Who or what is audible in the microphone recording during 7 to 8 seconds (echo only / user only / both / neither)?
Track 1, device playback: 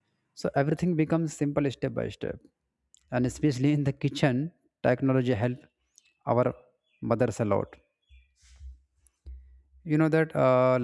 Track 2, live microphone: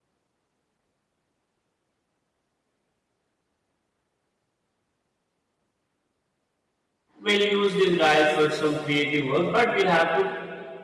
user only